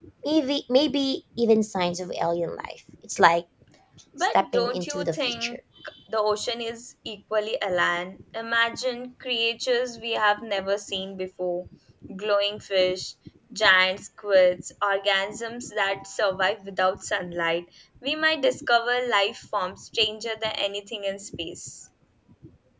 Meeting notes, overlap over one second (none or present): present